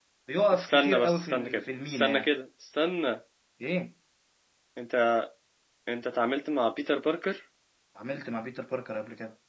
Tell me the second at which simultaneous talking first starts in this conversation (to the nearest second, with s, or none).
1 s